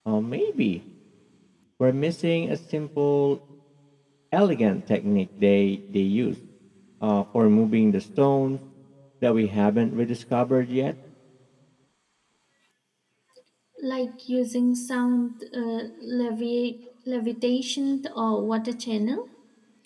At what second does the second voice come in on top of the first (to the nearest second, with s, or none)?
none